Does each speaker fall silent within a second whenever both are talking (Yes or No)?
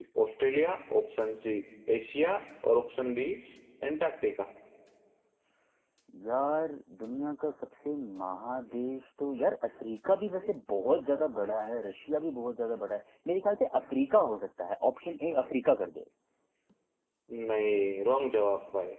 Yes